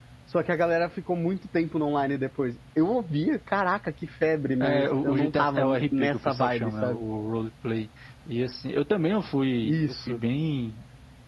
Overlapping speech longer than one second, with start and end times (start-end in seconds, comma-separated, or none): 4.6-7.0